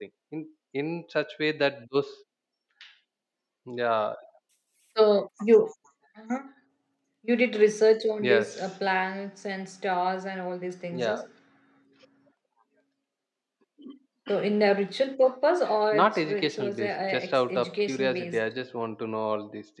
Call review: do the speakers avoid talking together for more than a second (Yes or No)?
No